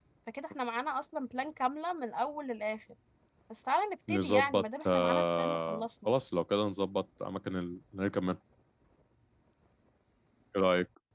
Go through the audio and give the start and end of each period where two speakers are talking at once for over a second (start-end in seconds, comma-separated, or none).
4.1-6.1